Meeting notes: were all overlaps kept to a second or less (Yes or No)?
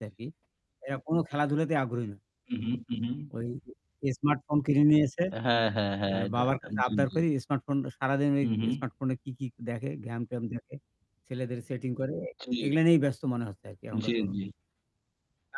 Yes